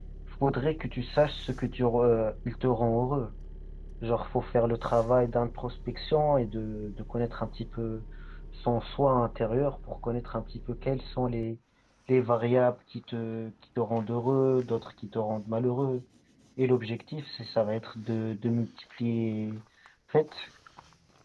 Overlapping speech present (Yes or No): No